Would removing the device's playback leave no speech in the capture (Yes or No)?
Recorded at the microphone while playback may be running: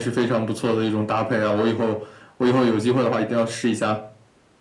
Yes